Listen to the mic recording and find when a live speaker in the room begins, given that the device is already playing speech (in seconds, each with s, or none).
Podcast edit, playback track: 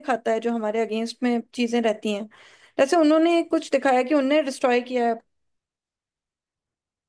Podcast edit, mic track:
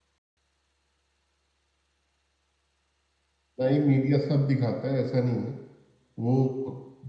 3.6 s